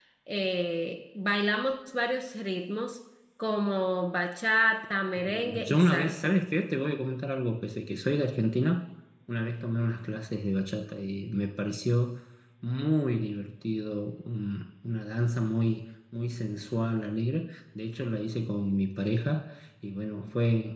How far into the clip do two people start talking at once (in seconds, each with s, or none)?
5.2 s